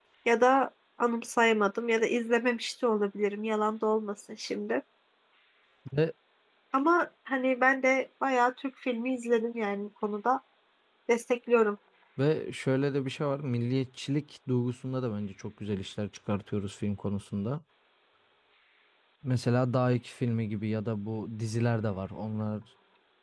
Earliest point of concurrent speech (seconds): none

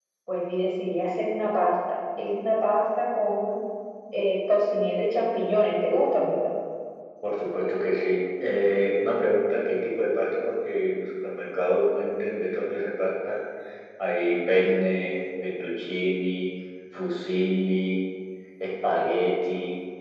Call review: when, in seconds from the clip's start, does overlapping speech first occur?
none

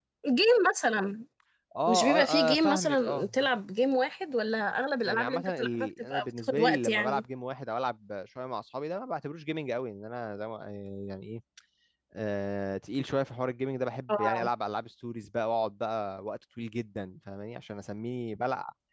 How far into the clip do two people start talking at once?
1.9 s

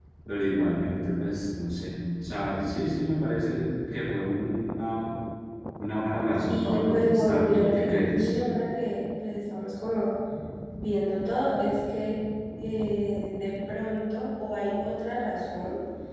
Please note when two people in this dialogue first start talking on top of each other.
6.5 s

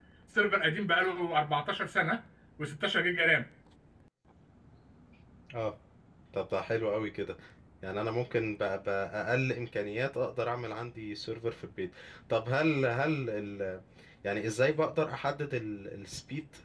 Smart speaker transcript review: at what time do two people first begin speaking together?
none

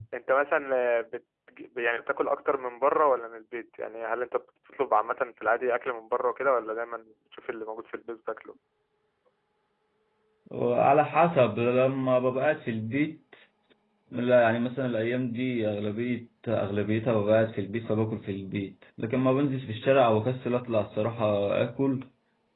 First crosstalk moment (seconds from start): none

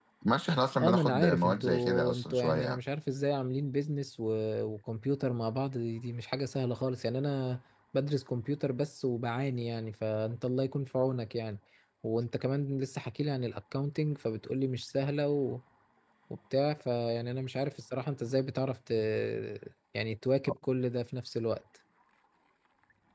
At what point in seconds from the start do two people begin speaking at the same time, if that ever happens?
0.8 s

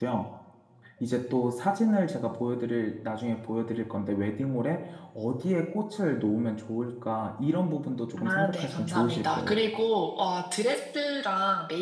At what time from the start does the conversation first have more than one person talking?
8.2 s

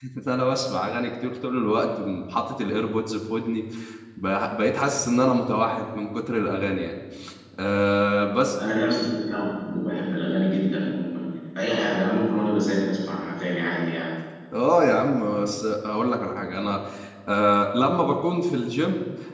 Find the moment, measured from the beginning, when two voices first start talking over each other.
none

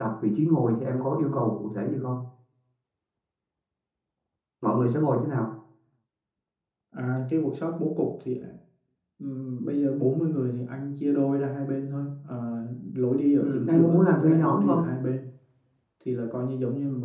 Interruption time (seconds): 13.4 s

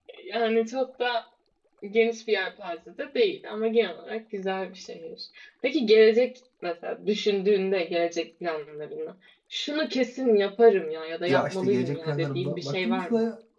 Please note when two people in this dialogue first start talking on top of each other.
11.3 s

